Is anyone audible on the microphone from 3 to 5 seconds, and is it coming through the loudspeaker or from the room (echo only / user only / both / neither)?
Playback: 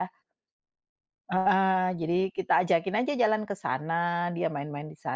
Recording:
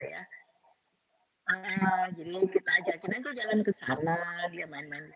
echo only